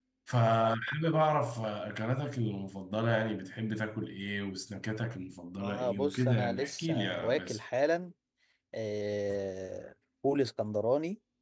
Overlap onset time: 6 s

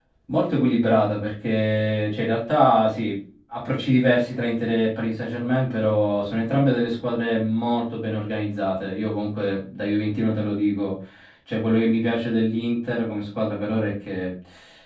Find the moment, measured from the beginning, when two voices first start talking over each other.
none

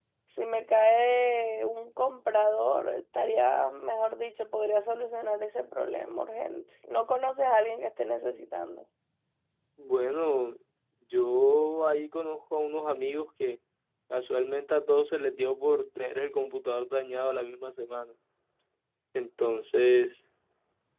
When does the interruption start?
none

